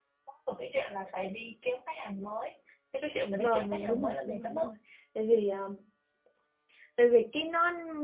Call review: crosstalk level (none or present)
present